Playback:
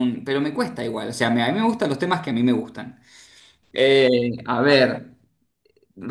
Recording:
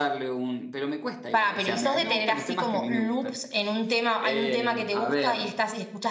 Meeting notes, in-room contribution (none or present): present